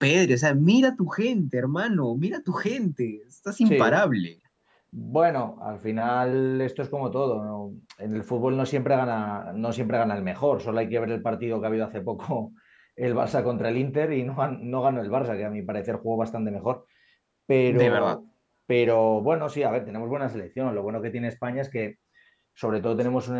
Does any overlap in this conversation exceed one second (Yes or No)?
No